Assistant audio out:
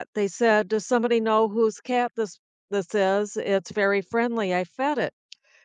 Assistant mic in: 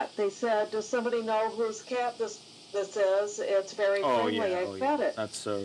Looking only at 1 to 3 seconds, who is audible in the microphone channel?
echo only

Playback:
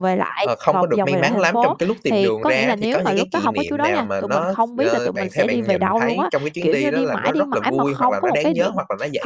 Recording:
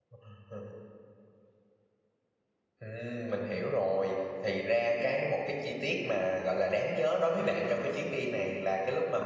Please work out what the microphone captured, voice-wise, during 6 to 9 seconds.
user only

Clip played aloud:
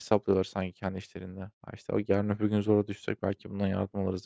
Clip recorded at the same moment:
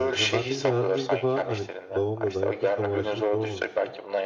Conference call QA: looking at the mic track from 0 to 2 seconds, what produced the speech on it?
both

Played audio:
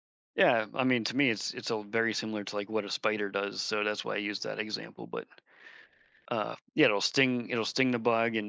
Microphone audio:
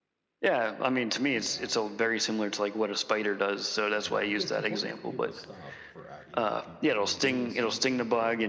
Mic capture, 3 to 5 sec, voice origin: both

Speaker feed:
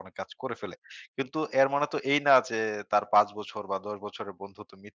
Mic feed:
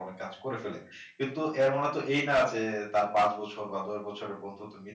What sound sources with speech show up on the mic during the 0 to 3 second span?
echo only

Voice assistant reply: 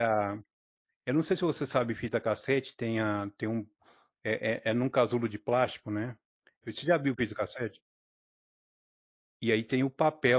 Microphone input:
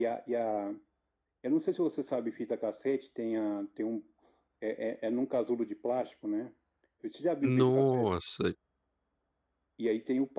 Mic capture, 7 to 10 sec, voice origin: both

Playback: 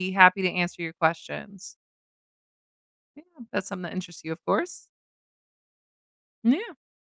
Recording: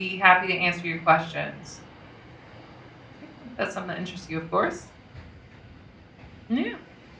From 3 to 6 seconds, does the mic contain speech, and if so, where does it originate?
echo only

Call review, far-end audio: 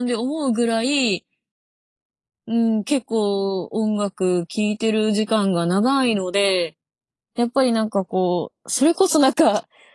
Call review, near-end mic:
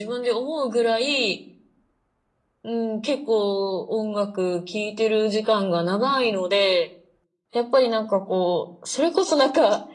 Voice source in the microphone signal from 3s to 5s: echo only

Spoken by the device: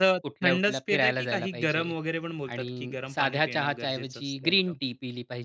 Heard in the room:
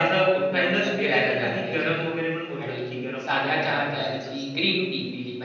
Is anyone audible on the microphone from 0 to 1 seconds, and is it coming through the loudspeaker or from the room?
echo only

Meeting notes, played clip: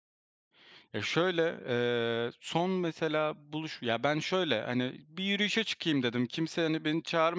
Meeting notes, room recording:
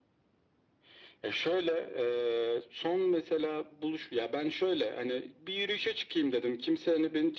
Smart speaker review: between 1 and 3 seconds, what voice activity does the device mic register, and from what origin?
echo only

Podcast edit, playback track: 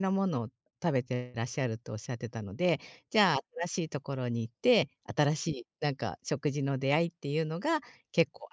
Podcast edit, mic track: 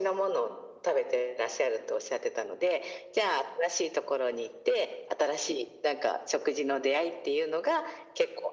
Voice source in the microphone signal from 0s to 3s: echo only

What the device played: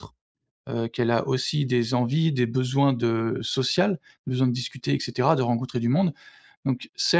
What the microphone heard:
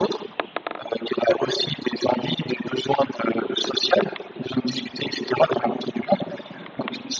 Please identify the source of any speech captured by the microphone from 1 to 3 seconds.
echo only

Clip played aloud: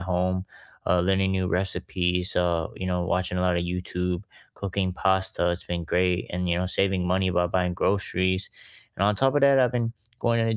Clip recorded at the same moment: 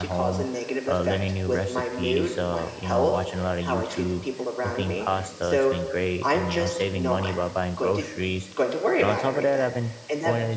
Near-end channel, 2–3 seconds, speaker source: both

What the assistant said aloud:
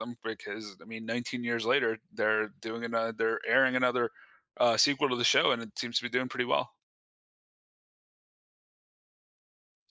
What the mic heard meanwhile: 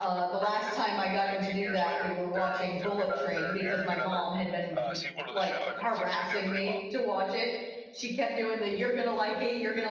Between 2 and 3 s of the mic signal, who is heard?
both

